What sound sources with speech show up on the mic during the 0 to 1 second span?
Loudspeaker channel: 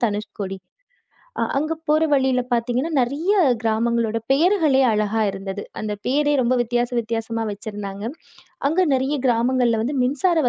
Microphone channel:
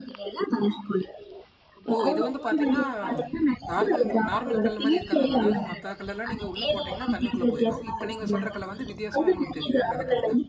echo only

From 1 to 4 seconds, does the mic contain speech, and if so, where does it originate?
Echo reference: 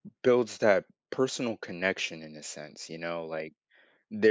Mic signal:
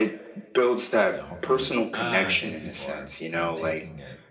both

